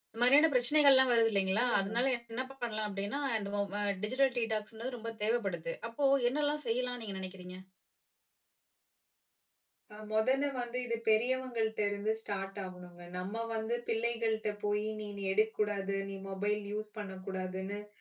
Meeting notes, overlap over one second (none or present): none